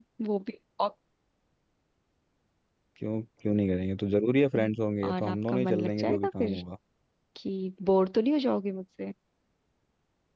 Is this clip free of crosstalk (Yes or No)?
No